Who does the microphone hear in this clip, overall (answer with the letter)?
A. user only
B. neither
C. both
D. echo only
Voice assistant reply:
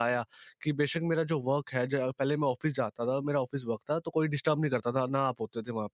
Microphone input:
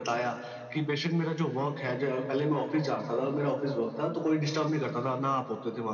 D